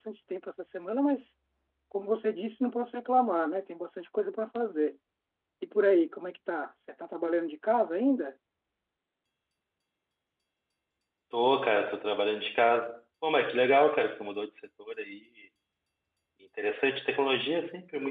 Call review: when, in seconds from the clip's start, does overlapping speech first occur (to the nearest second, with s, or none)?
none